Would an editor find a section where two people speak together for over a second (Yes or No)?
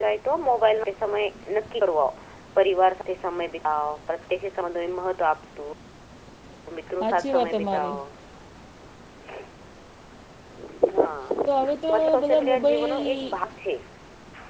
Yes